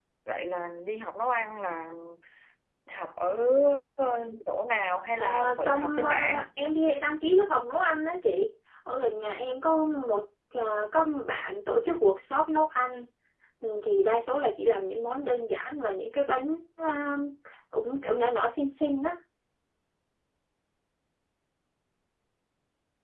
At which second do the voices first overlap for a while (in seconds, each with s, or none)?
5.2 s